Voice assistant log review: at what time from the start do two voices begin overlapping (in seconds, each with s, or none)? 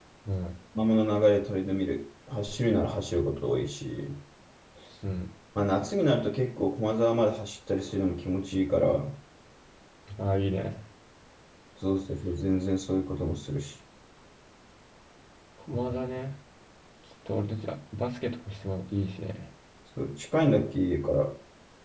none